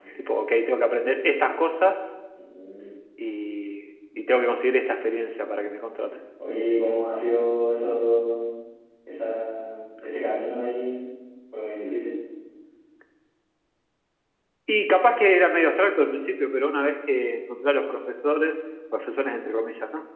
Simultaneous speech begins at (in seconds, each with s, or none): none